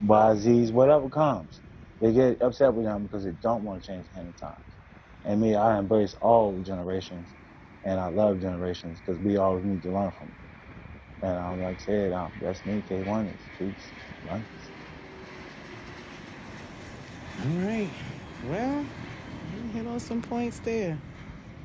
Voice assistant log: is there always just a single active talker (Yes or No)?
Yes